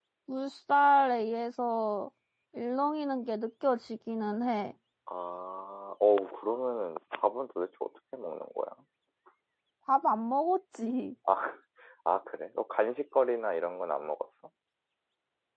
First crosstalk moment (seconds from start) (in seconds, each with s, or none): none